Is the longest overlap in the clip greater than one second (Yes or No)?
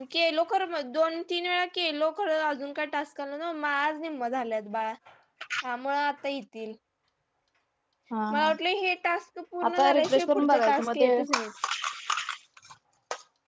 Yes